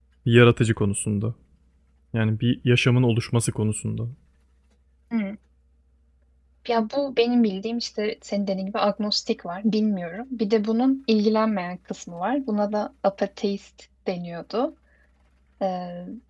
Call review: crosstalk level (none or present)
none